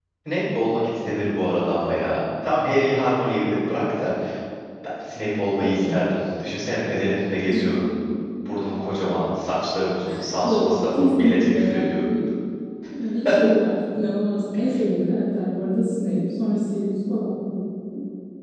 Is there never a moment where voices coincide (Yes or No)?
No